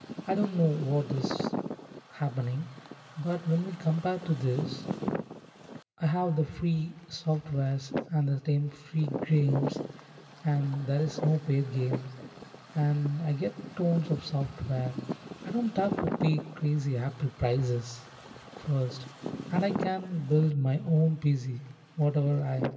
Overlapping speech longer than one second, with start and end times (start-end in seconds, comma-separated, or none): none